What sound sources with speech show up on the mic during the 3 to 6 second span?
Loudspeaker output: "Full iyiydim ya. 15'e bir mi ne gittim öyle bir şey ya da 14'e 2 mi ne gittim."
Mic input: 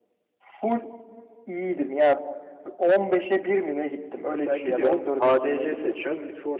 both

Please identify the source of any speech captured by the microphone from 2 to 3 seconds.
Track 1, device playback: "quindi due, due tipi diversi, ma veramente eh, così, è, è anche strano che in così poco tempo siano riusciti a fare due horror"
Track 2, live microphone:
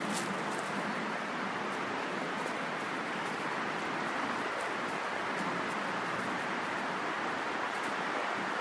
neither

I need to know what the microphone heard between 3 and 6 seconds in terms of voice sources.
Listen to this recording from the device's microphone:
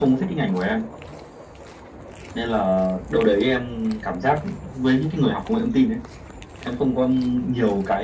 echo only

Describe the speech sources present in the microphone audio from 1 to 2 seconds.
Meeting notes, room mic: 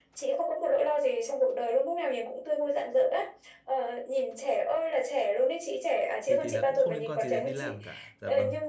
echo only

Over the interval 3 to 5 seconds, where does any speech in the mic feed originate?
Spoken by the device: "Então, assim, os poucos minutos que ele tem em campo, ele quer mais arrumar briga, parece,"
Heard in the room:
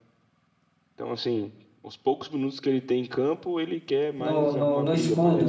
both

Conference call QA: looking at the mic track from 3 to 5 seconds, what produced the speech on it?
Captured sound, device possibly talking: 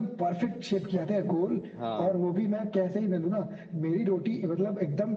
echo only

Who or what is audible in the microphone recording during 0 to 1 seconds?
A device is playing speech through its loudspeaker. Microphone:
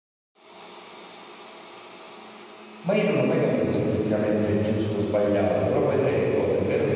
neither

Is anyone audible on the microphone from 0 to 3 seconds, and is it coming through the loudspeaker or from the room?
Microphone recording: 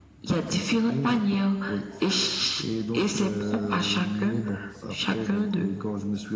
echo only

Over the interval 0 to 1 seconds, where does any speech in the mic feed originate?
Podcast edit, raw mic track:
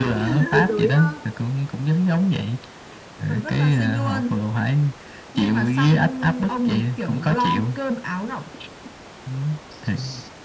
both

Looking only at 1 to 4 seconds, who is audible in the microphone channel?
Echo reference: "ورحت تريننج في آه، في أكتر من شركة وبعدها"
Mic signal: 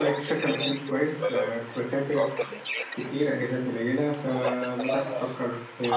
both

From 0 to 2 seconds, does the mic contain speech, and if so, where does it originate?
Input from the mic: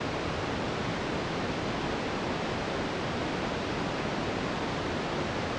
neither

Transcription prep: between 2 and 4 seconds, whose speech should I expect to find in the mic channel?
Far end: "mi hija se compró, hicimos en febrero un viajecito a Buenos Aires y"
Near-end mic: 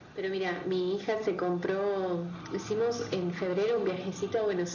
echo only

